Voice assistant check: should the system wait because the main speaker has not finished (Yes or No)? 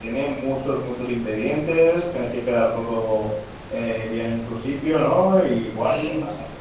Yes